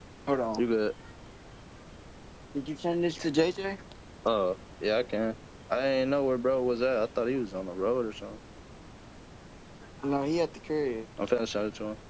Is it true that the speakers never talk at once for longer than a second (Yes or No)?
Yes